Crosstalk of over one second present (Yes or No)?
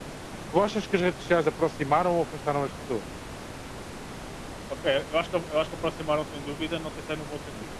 No